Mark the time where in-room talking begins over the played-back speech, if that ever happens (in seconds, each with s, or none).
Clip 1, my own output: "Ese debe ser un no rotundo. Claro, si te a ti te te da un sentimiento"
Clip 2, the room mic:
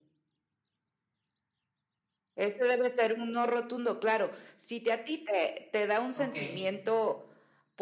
6.1 s